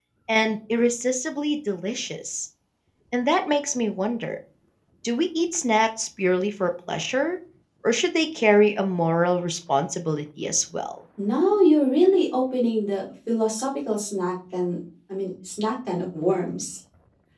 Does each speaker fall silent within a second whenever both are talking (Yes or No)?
Yes